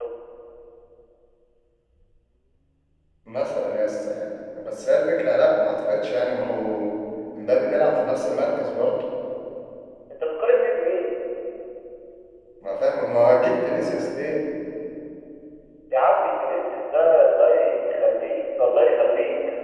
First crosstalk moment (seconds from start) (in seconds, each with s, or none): none